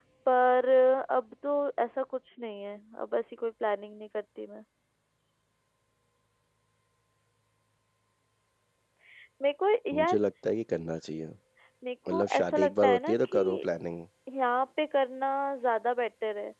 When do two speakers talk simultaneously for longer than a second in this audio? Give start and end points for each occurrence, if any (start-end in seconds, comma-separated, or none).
12.1-13.4